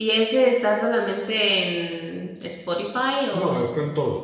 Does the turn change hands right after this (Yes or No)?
Yes